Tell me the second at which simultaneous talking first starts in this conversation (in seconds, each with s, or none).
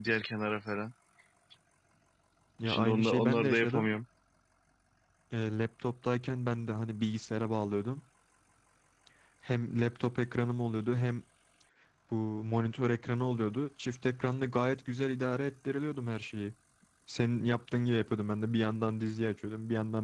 2.6 s